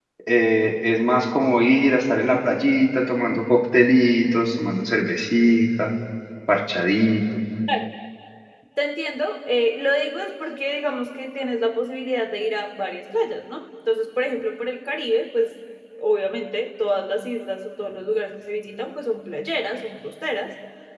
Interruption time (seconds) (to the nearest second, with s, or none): none